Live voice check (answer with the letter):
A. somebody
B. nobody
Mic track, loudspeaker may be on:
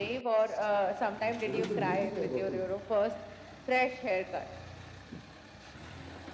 A